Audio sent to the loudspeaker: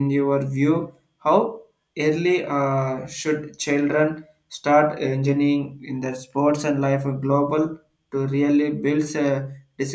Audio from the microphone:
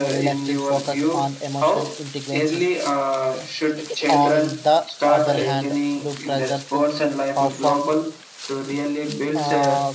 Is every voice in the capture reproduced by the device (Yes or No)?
No